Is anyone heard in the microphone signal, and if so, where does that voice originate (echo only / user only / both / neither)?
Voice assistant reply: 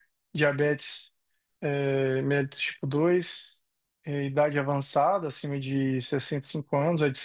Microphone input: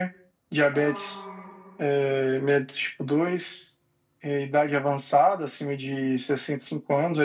both